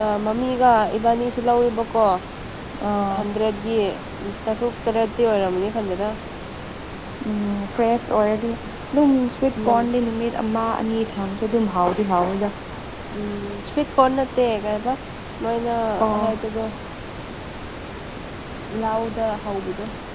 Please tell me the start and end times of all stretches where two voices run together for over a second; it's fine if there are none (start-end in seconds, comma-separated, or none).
none